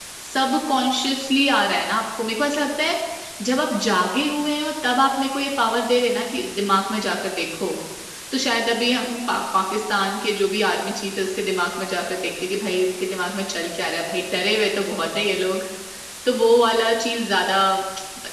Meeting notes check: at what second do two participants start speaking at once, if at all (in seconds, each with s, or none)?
none